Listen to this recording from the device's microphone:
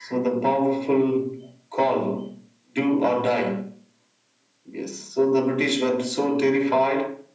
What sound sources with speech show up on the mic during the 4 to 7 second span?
echo only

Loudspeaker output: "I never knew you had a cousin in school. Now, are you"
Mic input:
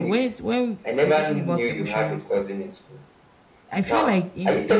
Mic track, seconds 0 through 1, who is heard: both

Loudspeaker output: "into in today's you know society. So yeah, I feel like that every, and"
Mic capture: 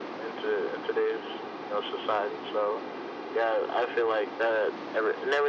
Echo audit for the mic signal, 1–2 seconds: echo only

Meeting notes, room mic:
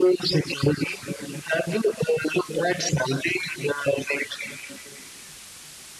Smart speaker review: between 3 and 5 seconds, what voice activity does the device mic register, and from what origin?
echo only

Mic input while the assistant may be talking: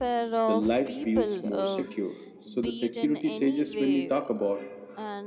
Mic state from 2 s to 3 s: both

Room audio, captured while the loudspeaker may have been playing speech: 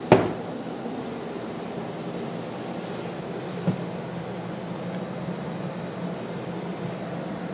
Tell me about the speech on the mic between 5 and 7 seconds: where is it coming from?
neither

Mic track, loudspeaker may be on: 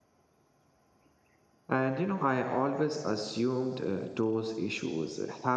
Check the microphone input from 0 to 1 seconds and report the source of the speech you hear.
neither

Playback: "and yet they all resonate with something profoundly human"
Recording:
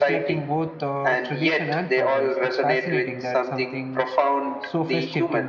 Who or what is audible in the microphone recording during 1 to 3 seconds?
both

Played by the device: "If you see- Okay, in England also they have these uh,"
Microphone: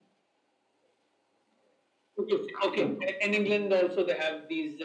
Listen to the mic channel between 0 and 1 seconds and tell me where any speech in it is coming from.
neither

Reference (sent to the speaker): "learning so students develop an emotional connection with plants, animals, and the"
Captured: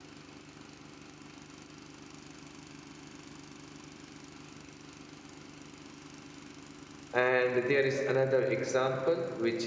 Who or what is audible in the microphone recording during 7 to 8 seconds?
user only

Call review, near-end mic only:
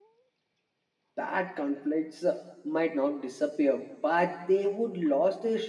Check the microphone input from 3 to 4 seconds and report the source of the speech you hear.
user only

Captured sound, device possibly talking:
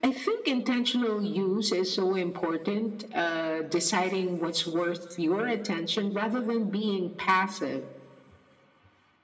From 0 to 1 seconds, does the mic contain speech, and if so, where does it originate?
echo only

